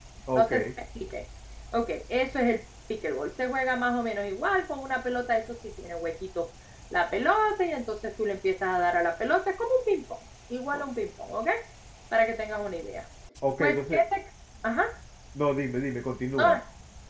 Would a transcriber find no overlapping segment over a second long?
Yes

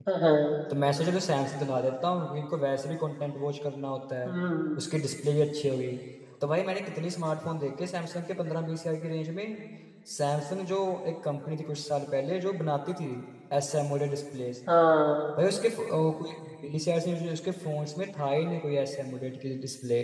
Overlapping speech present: No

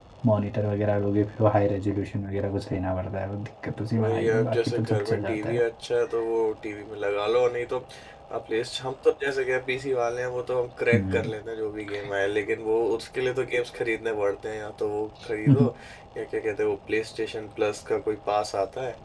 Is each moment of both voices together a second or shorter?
No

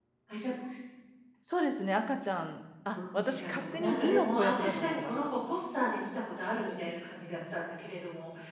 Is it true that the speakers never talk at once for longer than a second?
No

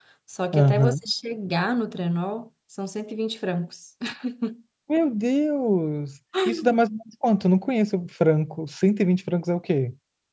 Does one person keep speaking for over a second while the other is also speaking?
No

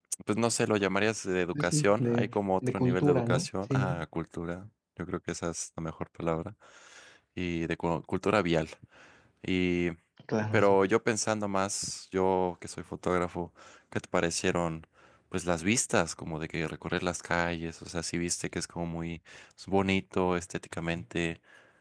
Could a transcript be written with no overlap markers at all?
No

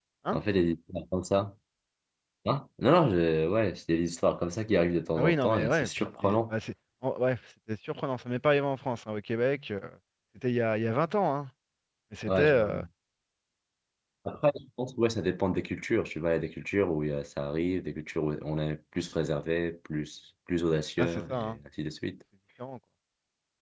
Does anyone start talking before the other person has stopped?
Yes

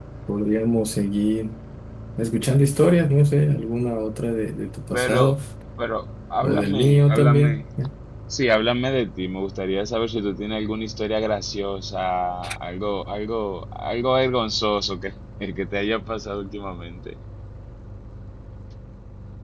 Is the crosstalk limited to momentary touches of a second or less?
No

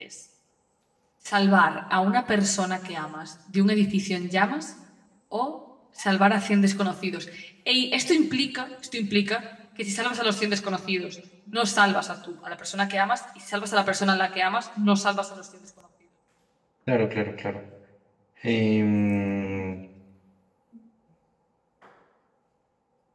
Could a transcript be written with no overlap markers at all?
Yes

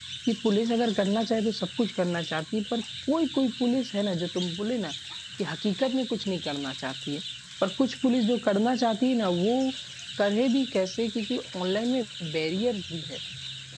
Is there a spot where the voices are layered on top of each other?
No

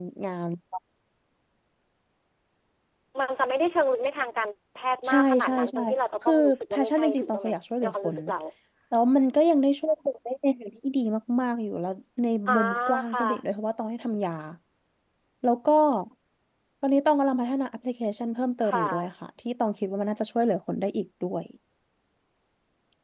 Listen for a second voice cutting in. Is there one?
Yes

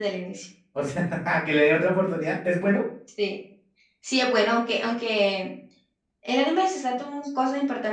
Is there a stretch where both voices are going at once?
No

